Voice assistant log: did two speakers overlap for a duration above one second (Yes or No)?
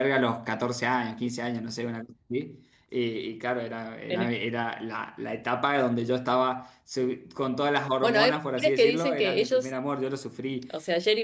Yes